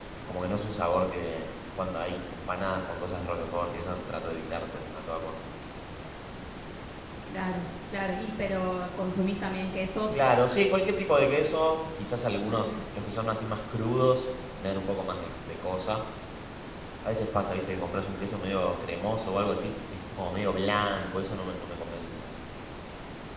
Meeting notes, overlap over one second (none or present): none